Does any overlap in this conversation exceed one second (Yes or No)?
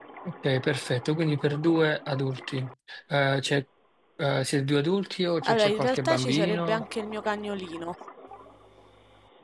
Yes